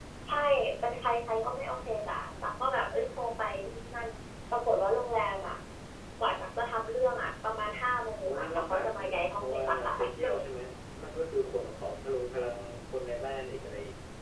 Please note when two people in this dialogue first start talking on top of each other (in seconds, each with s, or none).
8.3 s